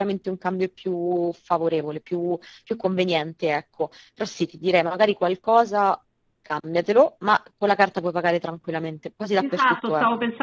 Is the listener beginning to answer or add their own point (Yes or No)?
Yes